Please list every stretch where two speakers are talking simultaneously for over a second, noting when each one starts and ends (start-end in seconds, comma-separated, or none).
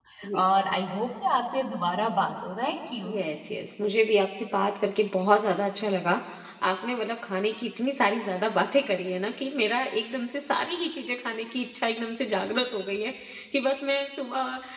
none